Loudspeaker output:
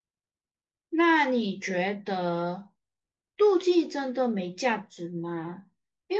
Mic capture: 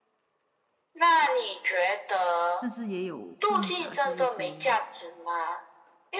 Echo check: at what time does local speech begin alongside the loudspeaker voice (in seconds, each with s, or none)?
2.6 s